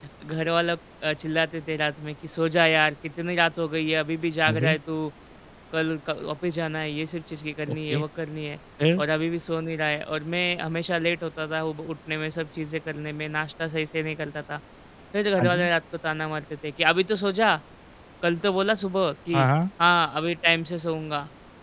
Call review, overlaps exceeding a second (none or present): none